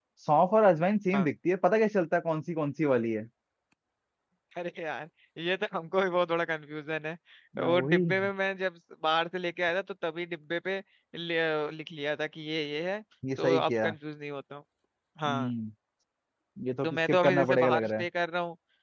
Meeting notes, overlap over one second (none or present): present